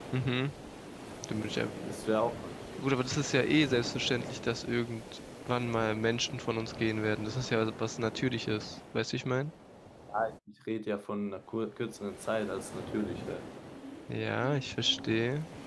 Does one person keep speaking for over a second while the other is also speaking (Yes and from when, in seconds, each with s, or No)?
No